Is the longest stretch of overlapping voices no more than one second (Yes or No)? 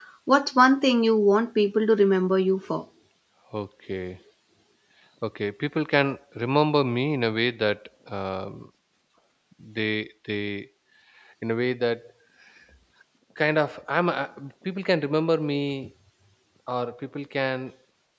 Yes